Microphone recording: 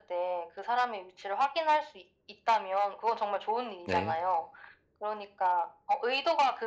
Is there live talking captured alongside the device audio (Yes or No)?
Yes